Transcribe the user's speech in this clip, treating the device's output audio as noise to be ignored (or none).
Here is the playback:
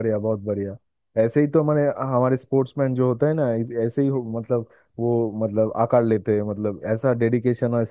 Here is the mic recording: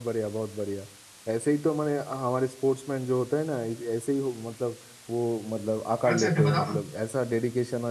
अच्छा अच्छा बताओ ना